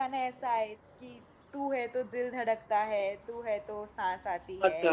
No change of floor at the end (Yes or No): No